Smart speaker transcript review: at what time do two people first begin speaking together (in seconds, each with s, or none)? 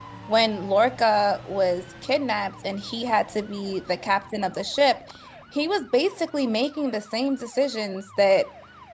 none